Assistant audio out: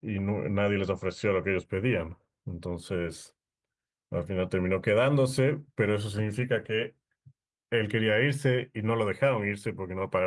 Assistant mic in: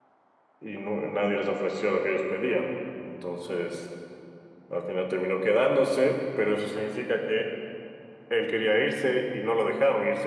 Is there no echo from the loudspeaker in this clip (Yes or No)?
No